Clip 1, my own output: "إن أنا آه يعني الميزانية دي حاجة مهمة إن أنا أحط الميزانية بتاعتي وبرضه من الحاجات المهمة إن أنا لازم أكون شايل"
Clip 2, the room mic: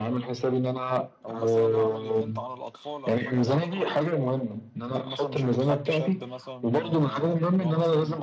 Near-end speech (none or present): present